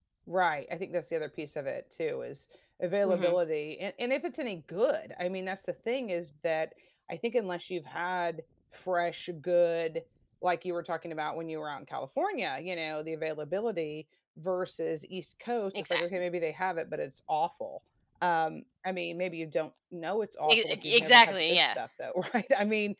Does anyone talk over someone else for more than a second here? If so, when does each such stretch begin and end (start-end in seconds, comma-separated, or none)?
20.5-21.8